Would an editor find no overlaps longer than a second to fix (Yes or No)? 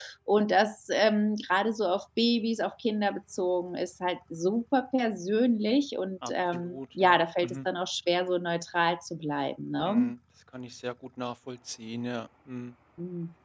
No